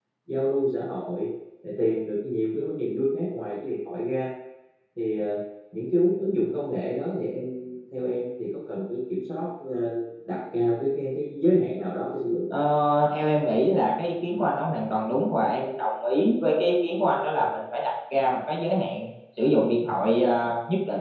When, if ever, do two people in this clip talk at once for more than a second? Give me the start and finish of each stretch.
none

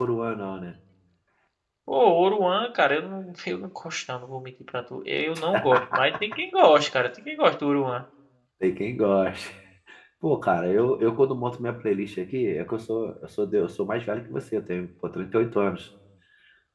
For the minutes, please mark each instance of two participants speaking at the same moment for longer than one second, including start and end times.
none

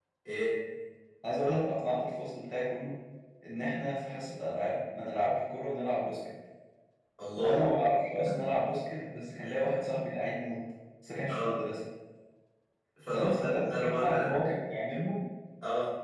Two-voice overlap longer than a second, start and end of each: 13.1-14.4

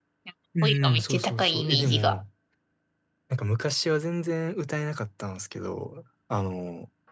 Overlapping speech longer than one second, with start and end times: 0.6-2.2

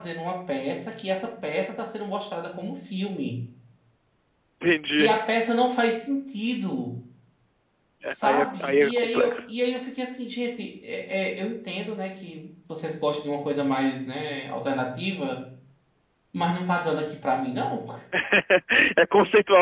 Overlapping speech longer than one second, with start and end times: 8.1-9.4

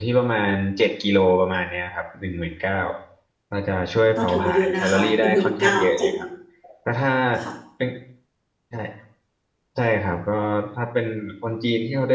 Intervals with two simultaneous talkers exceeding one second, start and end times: 4.2-6.1

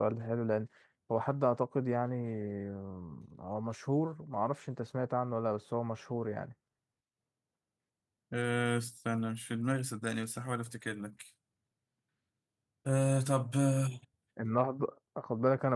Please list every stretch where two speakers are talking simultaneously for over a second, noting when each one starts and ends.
none

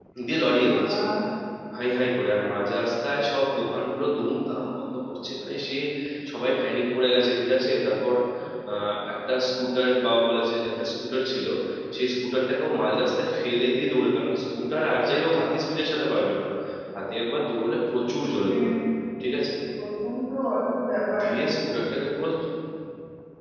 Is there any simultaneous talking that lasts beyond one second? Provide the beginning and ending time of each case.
none

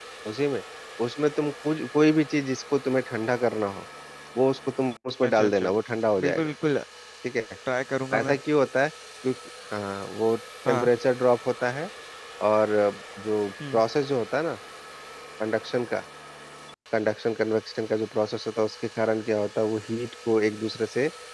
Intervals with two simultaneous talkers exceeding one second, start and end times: none

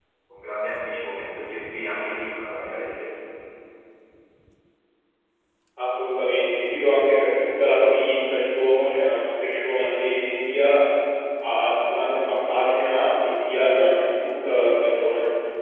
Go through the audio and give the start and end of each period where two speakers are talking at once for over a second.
none

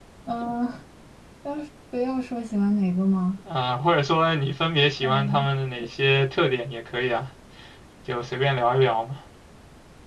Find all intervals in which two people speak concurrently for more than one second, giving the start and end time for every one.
none

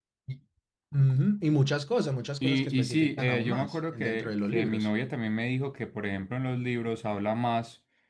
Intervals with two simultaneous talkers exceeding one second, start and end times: 2.4-4.9

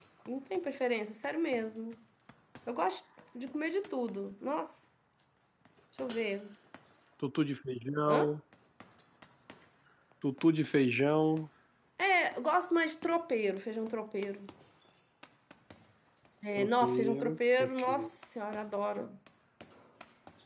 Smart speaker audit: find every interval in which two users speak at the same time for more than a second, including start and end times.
16.6-17.8

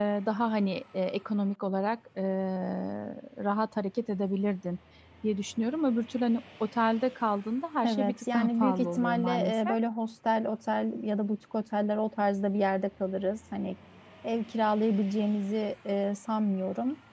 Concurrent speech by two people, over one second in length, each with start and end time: 7.8-9.8

